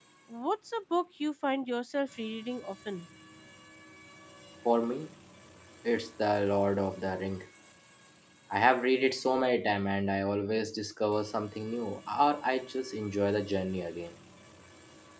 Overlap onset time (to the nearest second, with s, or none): none